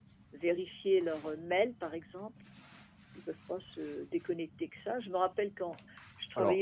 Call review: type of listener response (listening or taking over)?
listening